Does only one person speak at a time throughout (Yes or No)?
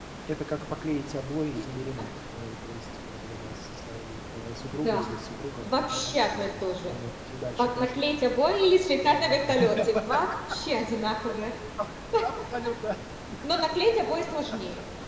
No